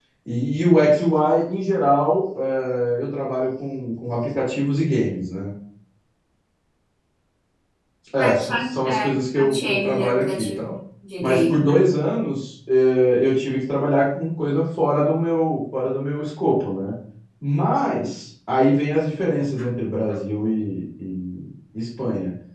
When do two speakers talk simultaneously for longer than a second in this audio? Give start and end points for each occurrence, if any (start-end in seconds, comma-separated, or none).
8.2-10.7